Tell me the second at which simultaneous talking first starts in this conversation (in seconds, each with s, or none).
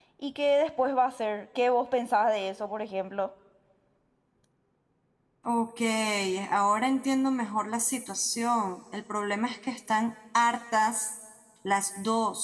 none